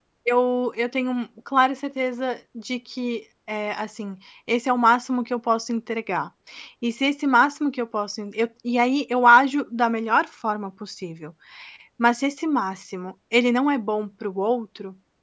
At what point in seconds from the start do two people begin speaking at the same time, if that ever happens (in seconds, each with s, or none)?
none